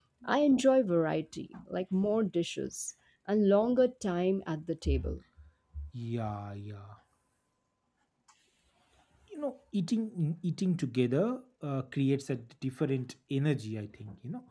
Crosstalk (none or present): none